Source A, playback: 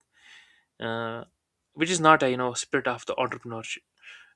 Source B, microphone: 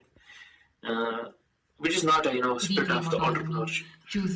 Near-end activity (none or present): present